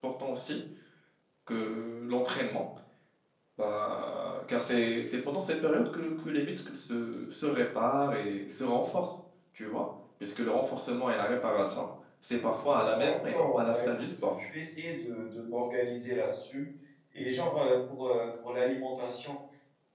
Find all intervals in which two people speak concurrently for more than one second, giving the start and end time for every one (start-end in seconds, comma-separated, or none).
12.7-14.3